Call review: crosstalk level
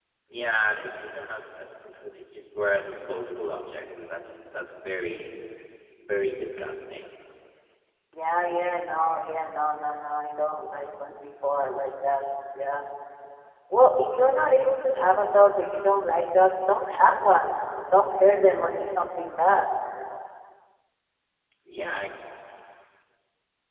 none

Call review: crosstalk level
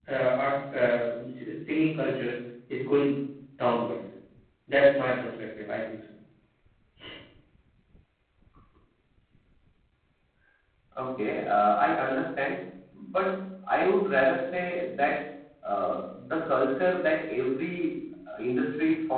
none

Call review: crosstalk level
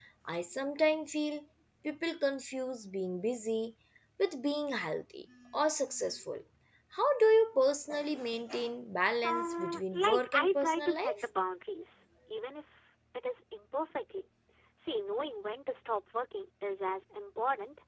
present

